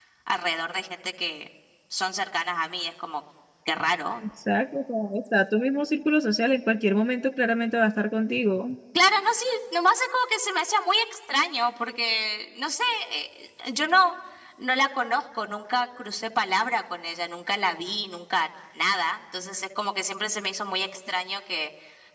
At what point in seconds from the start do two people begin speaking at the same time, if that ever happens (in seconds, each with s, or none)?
none